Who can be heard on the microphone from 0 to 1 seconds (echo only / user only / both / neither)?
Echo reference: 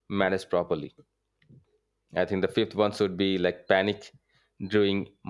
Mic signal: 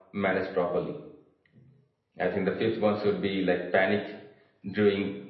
echo only